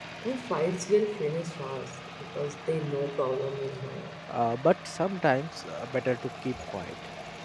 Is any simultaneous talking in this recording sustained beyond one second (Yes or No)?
No